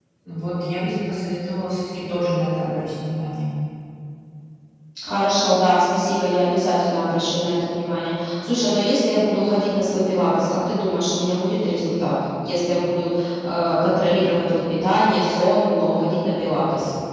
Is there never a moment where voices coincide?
Yes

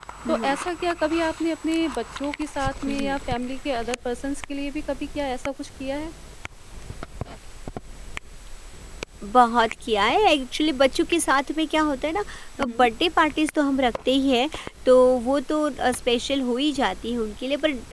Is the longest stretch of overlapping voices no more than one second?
Yes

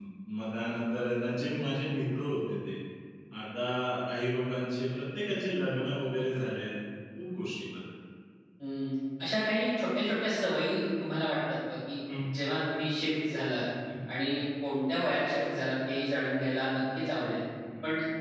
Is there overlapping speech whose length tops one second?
No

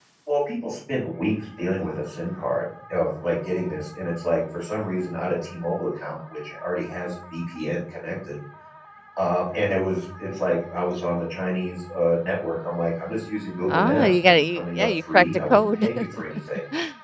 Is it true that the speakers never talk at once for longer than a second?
No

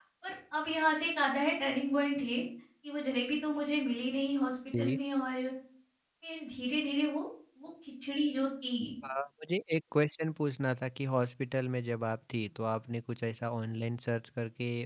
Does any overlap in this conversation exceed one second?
No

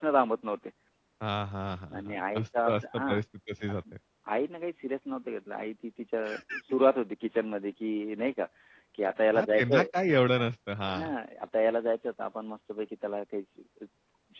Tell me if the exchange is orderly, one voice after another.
No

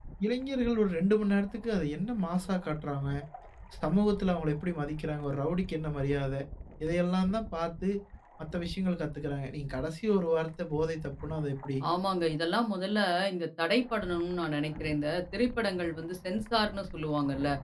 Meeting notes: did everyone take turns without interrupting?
Yes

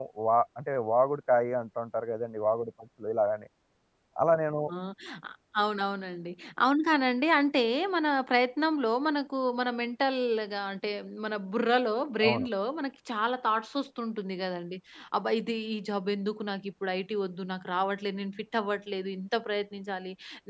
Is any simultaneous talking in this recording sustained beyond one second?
No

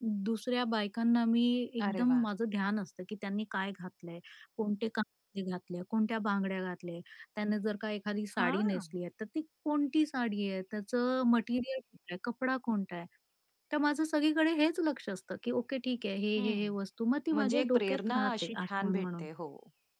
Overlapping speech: Yes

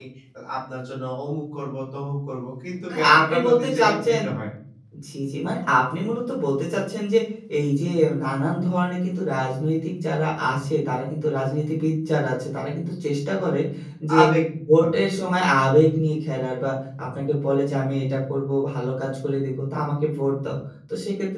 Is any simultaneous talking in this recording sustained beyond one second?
Yes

